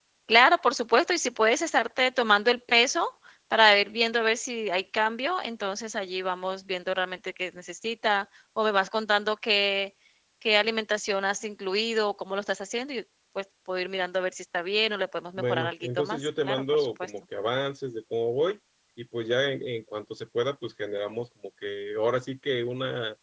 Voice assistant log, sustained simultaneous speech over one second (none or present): present